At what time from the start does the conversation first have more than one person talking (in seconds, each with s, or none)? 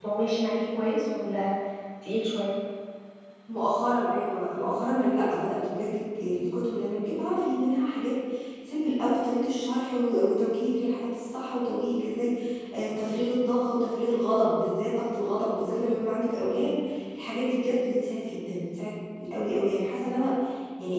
none